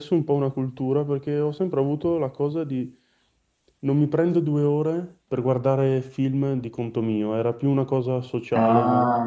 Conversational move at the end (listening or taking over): taking over